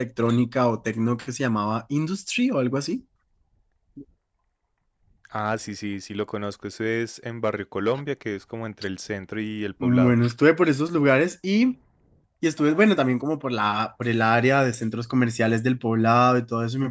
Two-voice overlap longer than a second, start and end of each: none

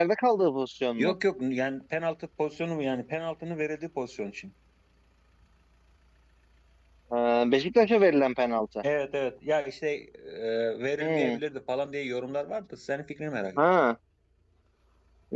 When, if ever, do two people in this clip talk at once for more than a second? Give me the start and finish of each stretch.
none

